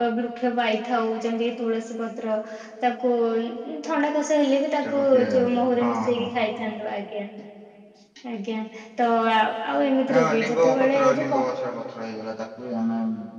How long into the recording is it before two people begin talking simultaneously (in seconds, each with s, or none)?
4.8 s